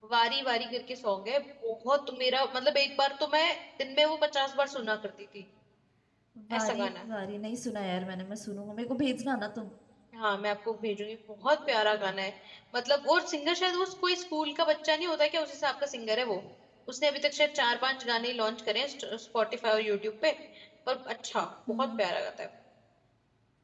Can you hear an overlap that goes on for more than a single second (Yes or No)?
No